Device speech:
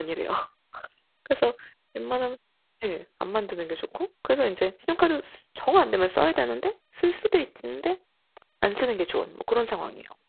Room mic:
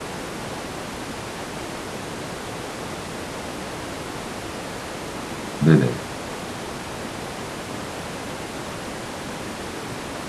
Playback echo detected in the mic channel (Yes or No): No